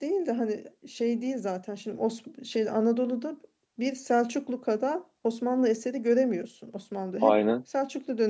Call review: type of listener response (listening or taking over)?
listening